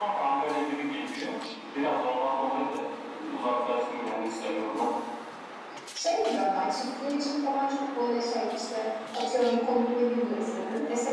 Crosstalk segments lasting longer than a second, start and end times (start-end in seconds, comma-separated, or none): none